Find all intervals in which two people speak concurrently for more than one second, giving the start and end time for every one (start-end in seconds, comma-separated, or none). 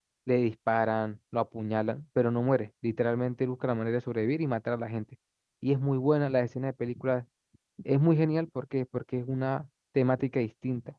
none